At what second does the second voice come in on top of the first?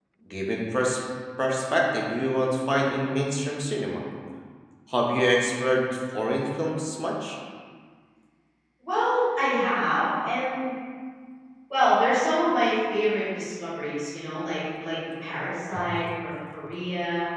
none

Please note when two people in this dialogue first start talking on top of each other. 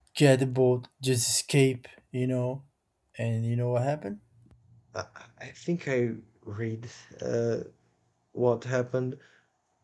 none

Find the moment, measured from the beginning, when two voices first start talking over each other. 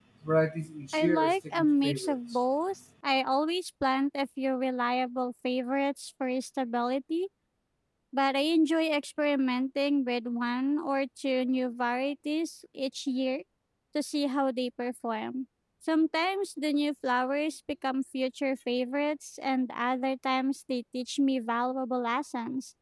0.9 s

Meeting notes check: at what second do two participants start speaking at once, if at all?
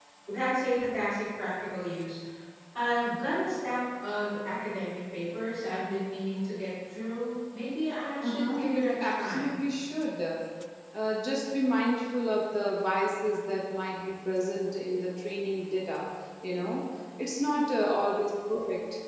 8.2 s

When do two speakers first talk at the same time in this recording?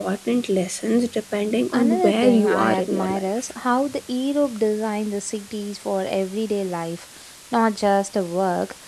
1.7 s

